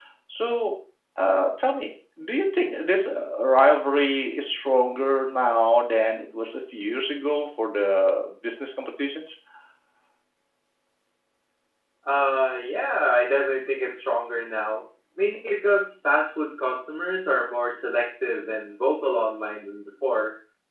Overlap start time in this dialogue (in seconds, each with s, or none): none